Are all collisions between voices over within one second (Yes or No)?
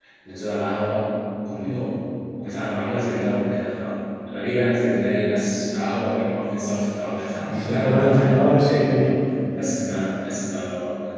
No